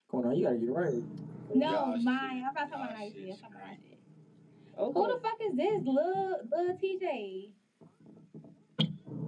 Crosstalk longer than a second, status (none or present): present